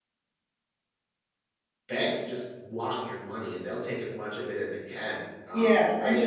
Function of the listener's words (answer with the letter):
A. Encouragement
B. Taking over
B